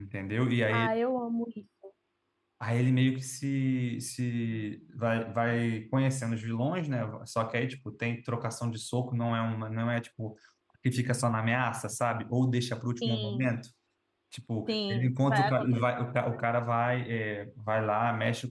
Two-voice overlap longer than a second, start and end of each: 14.7-15.9

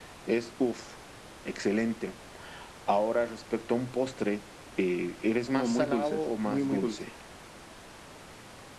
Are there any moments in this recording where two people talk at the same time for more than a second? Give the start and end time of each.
5.5-7.0

